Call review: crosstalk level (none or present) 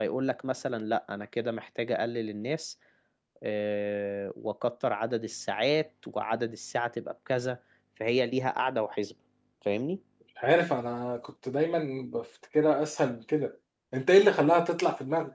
none